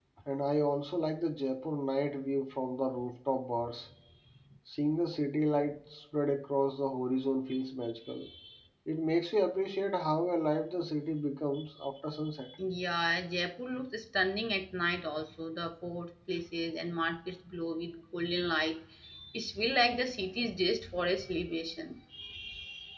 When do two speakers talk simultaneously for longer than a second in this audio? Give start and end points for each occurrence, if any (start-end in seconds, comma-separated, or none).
none